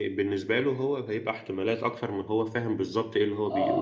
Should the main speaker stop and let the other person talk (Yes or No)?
Yes